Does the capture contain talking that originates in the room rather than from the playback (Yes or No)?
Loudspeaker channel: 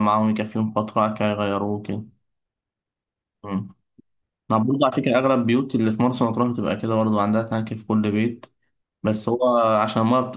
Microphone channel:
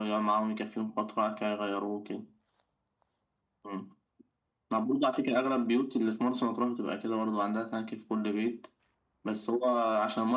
No